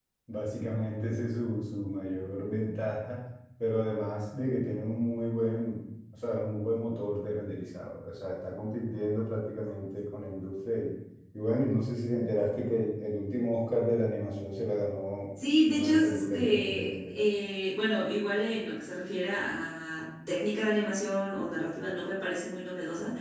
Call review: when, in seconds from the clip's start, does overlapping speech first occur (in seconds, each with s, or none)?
15.7 s